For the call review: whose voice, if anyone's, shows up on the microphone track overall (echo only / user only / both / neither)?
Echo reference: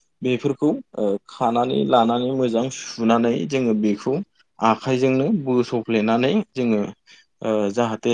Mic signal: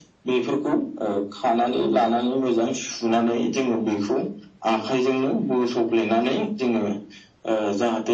echo only